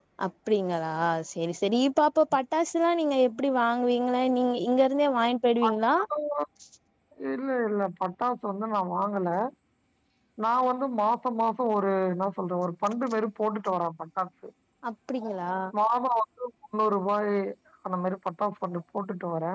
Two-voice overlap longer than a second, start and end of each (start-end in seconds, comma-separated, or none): none